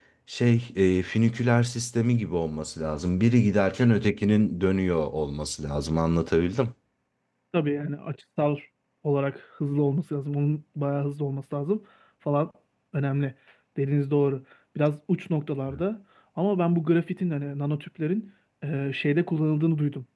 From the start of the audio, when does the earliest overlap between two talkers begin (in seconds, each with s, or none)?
none